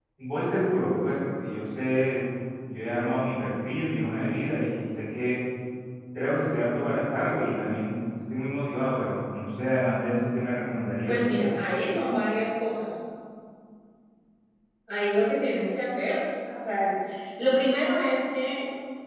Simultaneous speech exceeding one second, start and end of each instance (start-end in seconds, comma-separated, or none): none